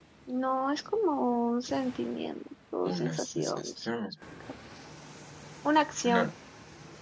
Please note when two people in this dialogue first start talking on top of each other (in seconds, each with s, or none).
2.9 s